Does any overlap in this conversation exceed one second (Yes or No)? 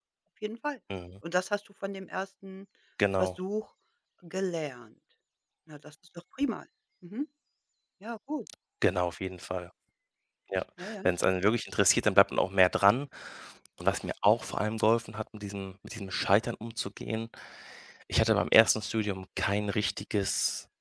No